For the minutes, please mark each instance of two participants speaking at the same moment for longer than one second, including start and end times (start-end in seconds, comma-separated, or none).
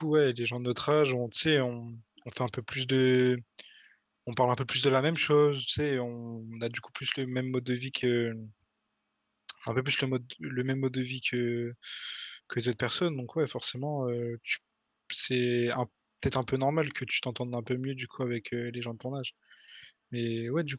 none